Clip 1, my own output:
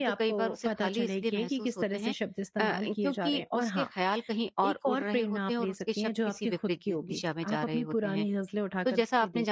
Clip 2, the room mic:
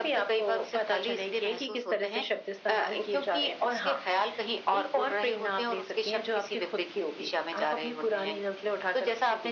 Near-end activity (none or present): none